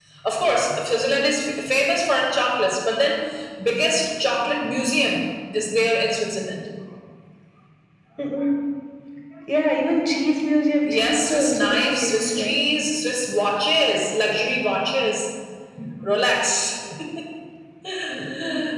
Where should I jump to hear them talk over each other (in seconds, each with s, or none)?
10.9 s